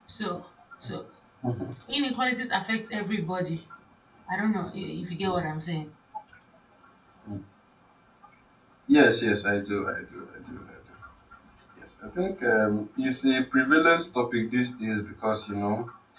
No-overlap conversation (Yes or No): Yes